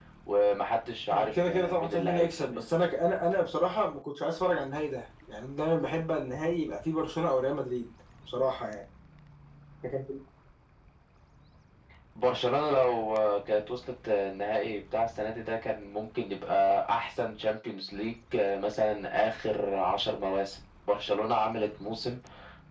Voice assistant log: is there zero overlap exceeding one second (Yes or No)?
No